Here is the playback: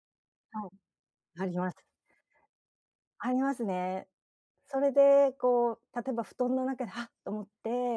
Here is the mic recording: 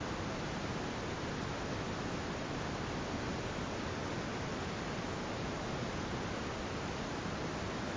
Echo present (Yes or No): No